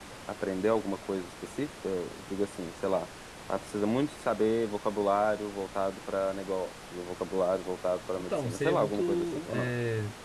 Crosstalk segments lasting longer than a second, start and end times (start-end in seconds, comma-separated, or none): 8.2-9.7